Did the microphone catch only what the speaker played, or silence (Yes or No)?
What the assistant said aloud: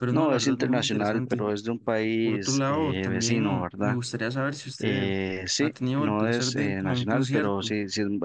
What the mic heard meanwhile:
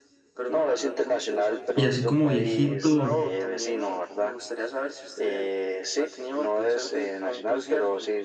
No